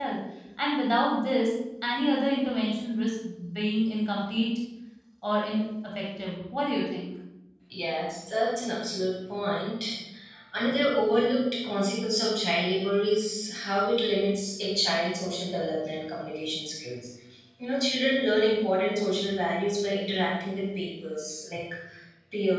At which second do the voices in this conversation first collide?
none

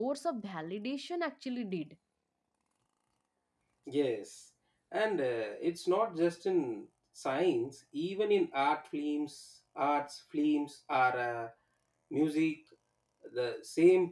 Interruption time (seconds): none

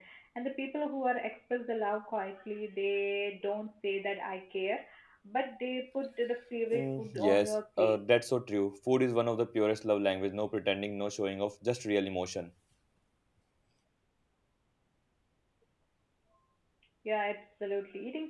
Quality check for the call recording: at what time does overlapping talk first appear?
6.7 s

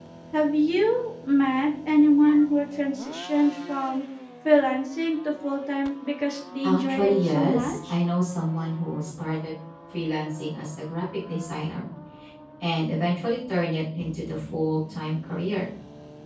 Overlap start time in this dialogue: 6.6 s

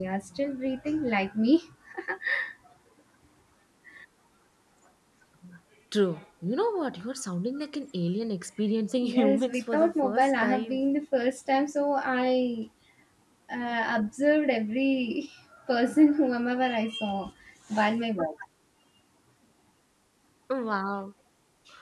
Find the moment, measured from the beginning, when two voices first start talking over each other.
9.0 s

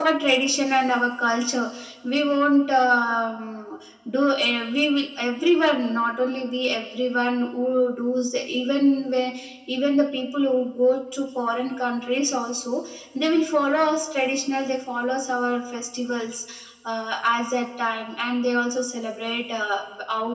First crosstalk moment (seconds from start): none

